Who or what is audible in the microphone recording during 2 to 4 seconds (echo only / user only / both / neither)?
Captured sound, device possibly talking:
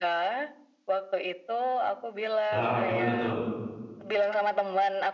both